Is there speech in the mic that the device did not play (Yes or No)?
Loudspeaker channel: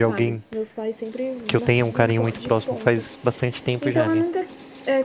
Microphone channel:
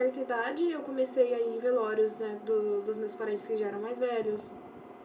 Yes